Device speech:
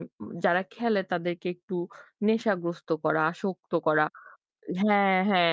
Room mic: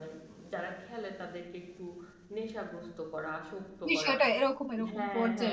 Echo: present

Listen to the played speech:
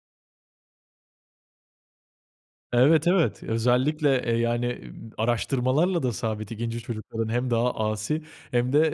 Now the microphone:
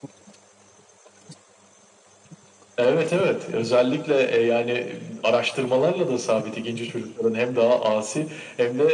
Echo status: present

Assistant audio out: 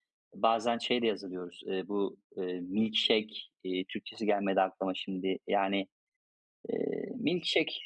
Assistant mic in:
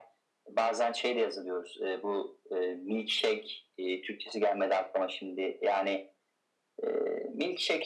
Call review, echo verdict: present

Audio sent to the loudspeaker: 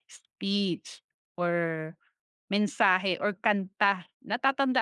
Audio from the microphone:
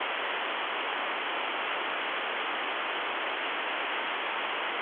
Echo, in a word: none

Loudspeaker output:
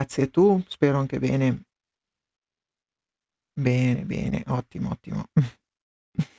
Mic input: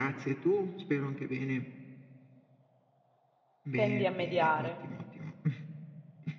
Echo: present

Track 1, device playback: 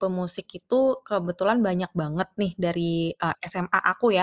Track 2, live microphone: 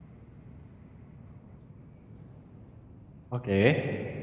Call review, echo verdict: none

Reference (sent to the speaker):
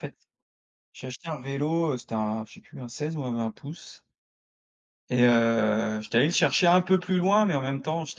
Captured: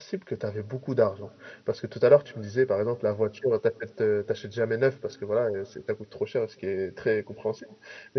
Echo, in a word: none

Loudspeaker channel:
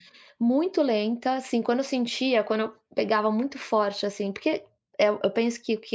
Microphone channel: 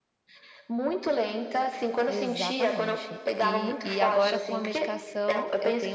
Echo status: present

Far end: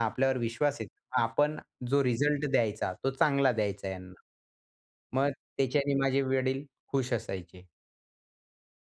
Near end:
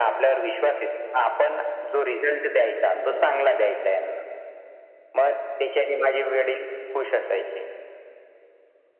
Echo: present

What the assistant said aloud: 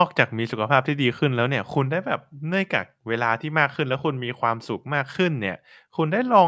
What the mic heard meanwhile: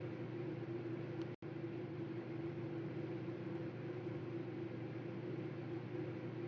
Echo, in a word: none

